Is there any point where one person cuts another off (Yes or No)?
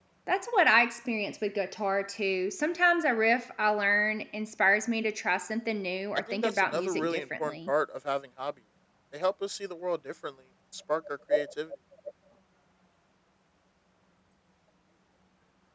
Yes